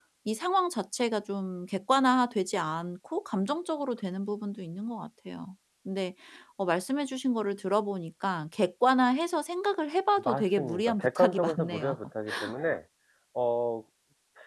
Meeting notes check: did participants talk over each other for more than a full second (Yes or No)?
Yes